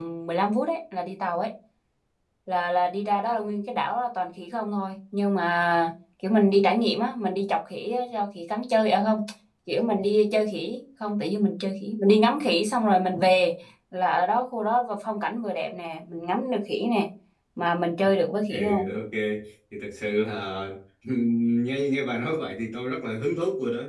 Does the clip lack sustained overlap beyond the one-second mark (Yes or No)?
Yes